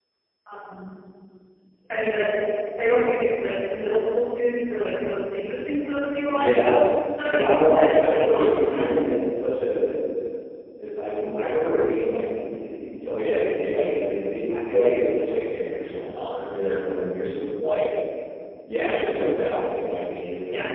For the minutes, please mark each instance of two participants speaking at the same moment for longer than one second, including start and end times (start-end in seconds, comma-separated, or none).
7.2-9.2